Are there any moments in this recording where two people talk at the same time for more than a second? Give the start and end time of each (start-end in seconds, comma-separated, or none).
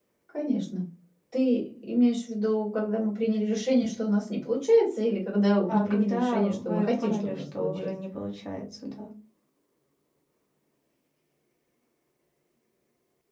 5.7-7.9